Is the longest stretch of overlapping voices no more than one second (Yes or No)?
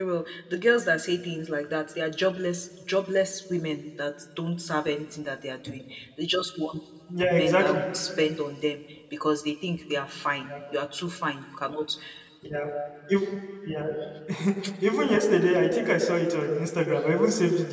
Yes